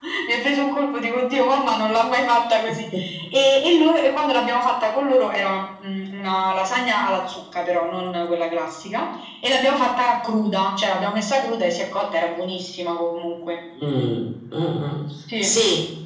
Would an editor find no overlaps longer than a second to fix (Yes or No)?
Yes